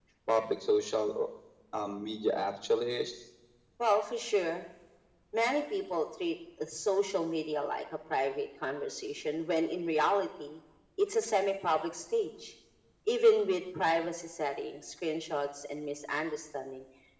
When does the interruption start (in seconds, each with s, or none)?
none